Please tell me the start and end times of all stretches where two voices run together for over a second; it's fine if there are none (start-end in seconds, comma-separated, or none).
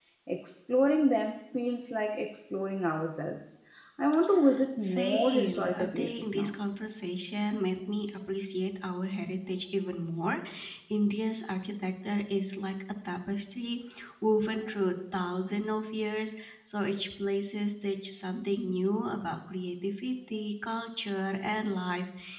4.8-6.5